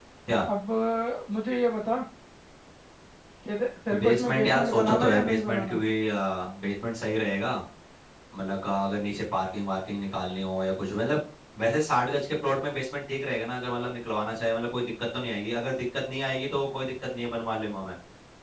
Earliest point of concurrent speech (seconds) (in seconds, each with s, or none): 4.0 s